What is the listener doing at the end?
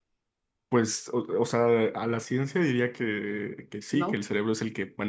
listening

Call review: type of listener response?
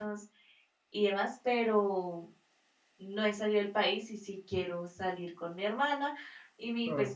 listening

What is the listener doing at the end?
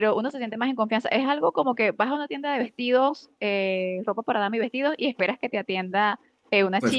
listening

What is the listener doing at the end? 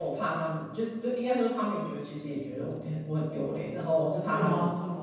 taking over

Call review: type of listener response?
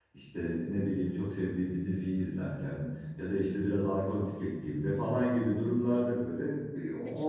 taking over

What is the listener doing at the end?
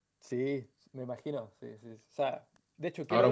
taking over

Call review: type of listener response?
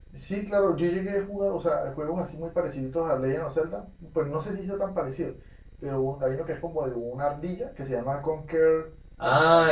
taking over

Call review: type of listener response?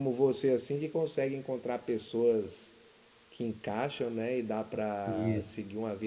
listening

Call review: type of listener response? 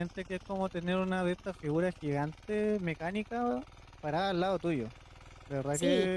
listening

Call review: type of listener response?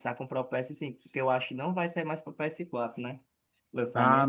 taking over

